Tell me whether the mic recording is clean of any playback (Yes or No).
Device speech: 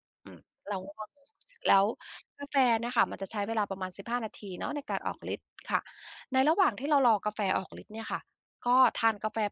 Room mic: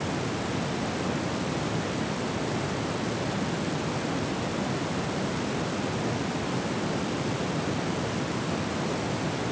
Yes